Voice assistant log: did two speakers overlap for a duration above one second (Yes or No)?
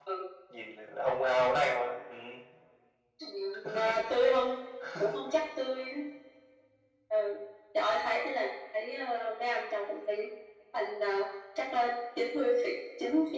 No